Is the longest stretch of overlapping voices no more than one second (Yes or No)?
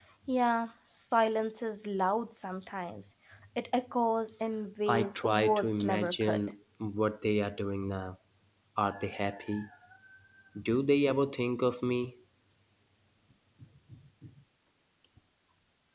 No